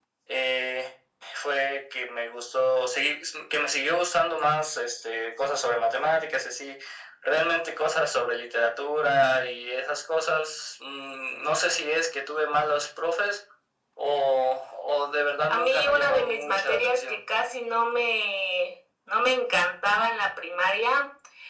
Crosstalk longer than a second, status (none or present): present